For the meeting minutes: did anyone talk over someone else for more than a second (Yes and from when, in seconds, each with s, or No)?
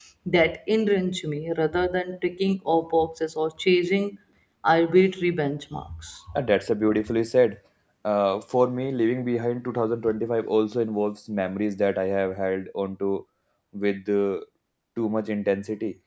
No